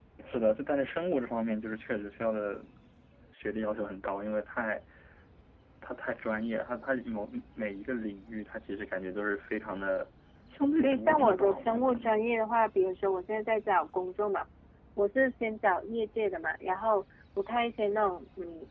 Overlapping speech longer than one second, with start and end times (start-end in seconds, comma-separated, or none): 10.8-12.2